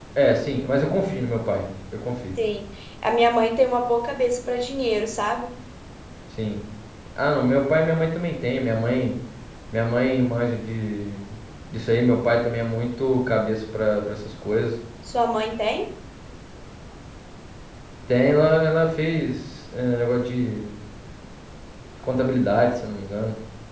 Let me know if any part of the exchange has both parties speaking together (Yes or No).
No